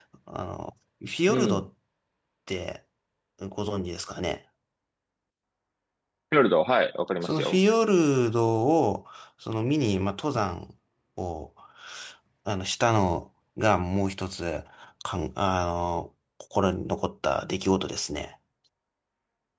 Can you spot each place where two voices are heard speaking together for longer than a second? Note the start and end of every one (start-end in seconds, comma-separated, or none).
none